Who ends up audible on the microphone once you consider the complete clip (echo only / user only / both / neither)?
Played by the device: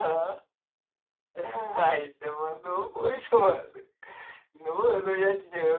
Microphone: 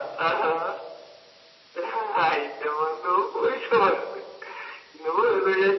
echo only